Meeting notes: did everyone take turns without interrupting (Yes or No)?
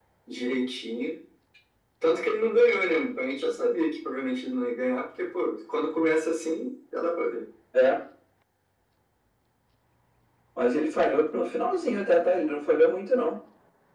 Yes